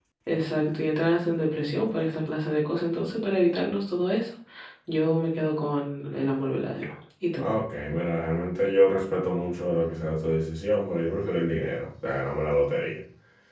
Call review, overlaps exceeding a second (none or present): none